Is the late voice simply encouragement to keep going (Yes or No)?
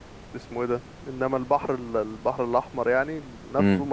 Yes